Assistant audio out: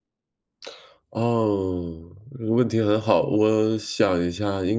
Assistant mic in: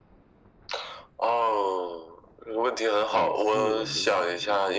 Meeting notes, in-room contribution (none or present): present